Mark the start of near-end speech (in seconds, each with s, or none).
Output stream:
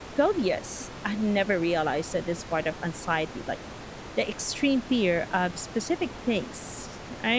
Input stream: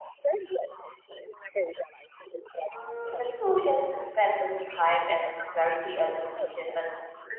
2.7 s